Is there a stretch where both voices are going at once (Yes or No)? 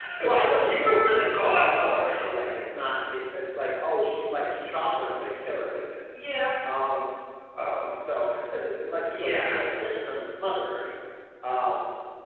Yes